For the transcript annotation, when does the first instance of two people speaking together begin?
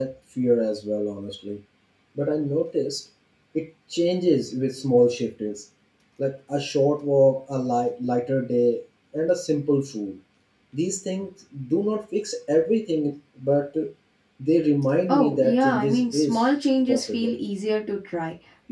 15.1 s

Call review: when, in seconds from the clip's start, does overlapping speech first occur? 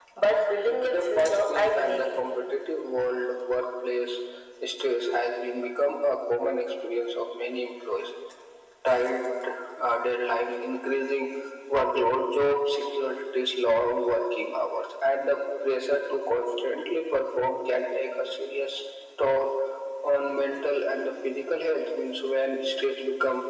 0.7 s

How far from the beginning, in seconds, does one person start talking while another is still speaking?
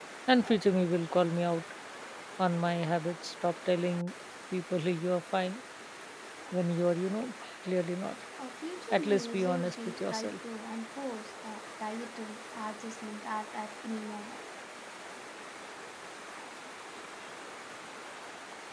8.9 s

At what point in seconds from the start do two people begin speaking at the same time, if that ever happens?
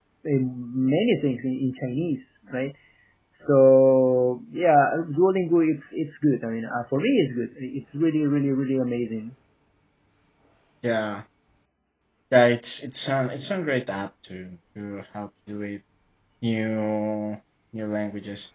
none

